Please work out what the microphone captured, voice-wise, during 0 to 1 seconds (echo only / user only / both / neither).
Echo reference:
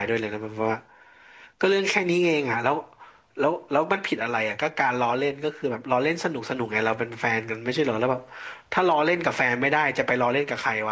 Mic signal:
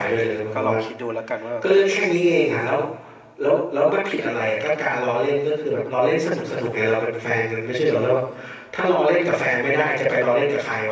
both